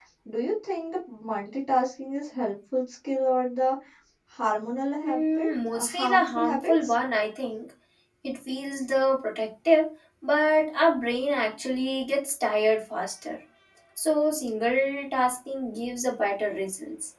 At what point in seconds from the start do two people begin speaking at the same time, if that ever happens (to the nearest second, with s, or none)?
5 s